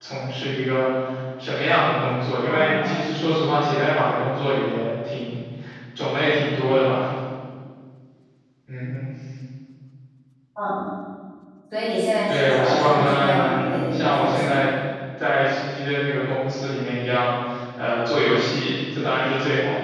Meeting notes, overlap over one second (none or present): present